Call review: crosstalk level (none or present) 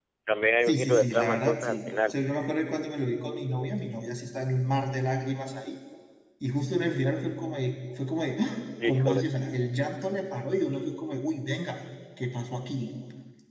present